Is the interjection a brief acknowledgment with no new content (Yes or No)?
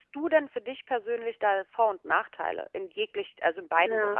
No